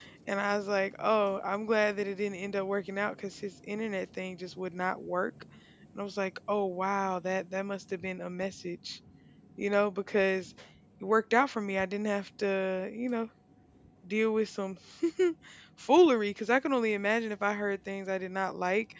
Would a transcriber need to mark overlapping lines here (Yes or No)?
No